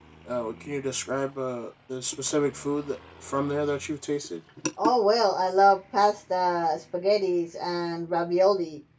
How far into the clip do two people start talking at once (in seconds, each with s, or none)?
none